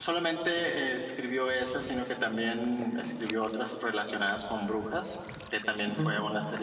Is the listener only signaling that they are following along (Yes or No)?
Yes